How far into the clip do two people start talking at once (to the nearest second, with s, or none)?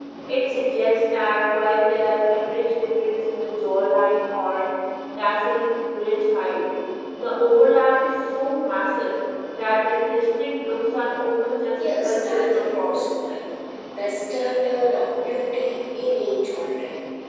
12 s